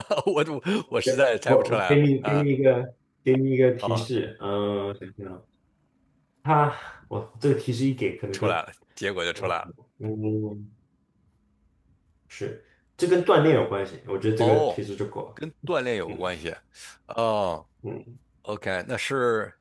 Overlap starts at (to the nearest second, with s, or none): 1 s